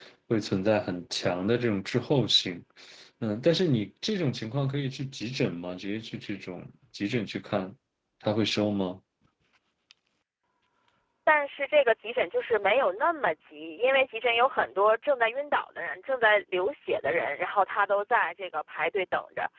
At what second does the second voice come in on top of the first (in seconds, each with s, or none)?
none